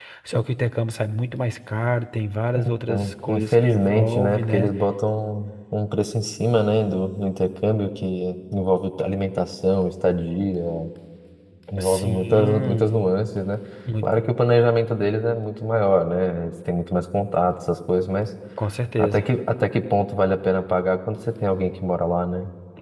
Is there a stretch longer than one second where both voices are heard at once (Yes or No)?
Yes